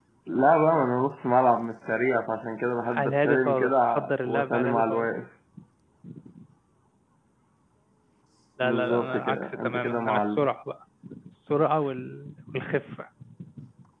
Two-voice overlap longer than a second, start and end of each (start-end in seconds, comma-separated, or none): 3.0-5.1, 8.6-10.5